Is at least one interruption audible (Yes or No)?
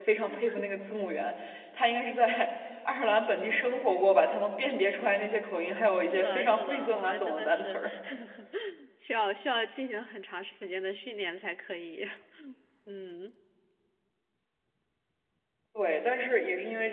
Yes